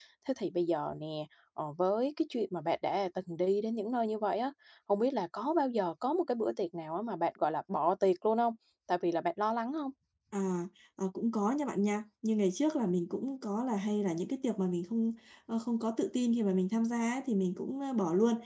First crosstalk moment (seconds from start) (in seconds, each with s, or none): none